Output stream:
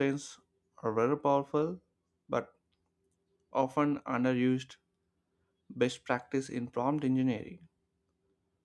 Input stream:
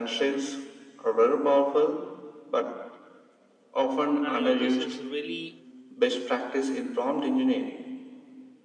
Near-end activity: present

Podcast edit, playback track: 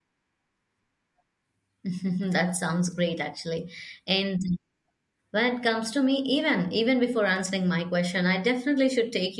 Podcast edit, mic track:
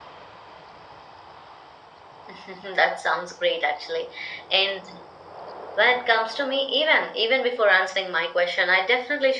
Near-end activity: none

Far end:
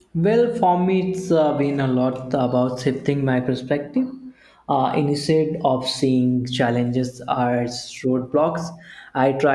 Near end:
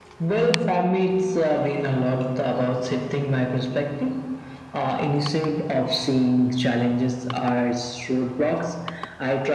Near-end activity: none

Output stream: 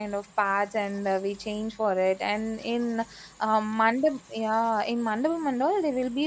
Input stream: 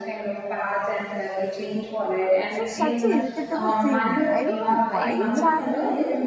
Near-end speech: present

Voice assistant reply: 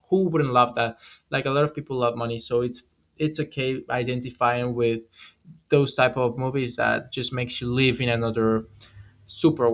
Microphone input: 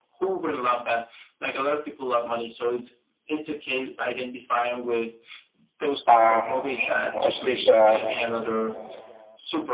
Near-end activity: present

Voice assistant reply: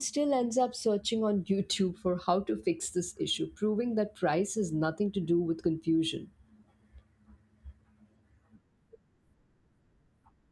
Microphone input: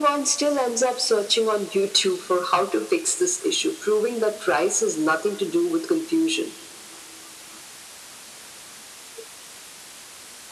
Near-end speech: none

